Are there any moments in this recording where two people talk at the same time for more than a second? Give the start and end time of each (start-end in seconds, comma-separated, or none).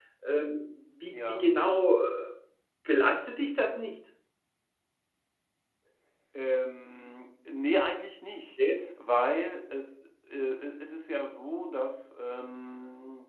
none